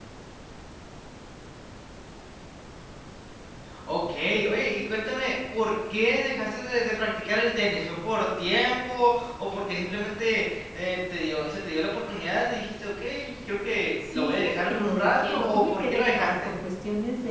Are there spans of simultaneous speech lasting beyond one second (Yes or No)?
Yes